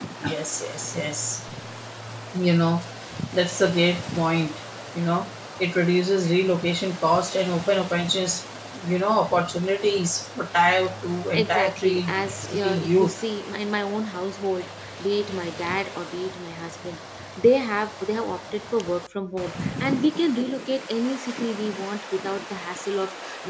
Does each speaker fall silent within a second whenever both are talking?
No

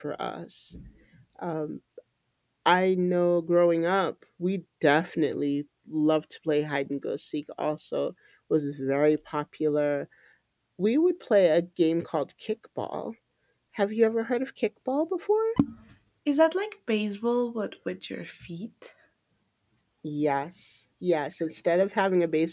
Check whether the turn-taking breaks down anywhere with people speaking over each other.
No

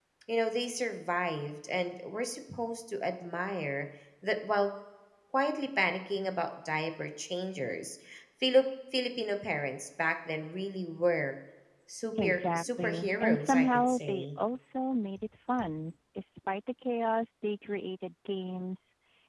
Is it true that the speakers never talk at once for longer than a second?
No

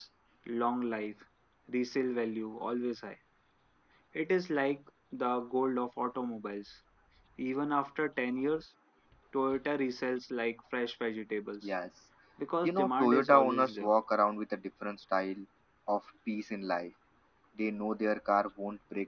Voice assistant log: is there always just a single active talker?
No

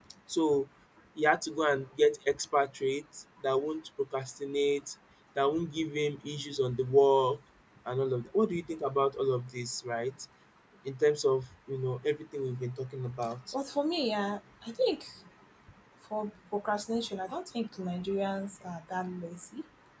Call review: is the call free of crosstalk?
Yes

